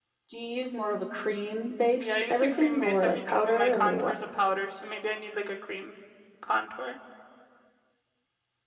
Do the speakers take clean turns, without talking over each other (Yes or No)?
No